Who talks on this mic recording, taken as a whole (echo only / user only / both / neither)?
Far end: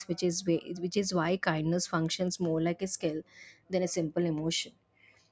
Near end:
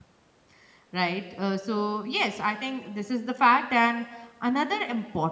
user only